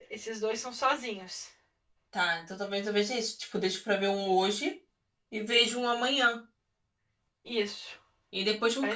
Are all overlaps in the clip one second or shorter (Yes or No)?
Yes